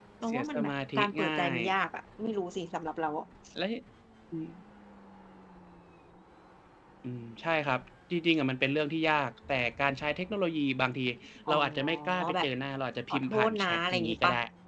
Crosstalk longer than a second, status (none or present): present